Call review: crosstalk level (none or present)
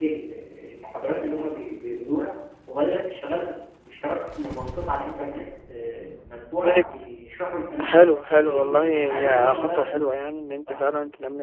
present